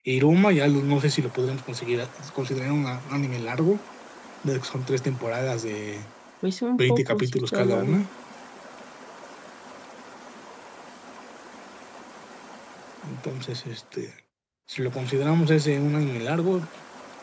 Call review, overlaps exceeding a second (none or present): present